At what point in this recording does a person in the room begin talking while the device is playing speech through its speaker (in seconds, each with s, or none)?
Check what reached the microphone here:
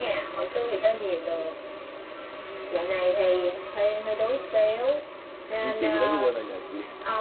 5.6 s